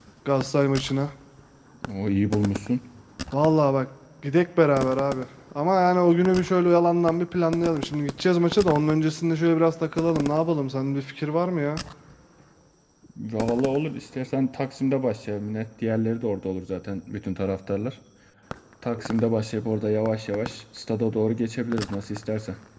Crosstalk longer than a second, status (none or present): none